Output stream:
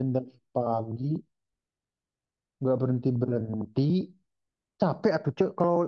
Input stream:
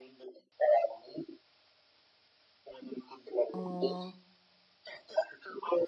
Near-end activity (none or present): present